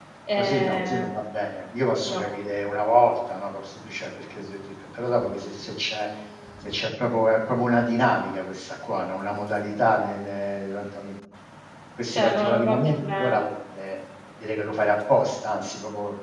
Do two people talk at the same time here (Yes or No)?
Yes